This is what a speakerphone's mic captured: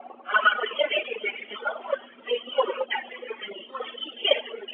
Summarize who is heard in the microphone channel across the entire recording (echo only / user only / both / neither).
echo only